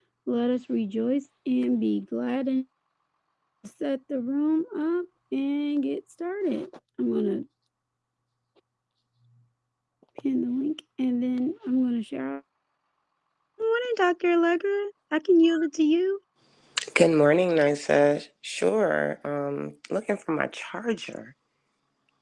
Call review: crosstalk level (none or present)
none